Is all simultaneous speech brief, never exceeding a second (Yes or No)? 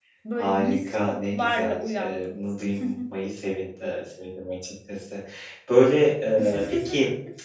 No